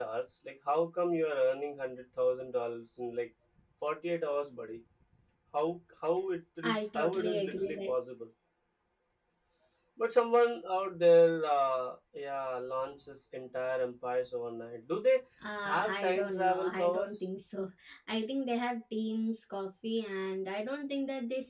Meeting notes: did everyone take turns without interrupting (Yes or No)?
No